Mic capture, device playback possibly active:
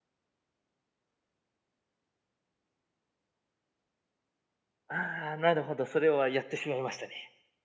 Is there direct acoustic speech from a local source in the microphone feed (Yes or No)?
Yes